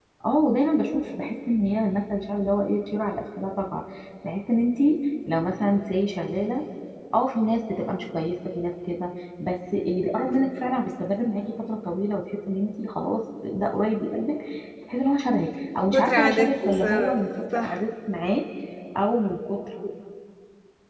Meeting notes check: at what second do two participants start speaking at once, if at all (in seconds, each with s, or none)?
15.9 s